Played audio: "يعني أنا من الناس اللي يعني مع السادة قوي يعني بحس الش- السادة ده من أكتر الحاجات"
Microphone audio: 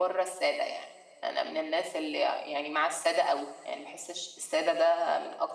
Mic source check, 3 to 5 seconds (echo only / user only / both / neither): echo only